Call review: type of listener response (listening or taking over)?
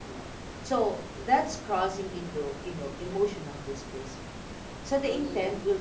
listening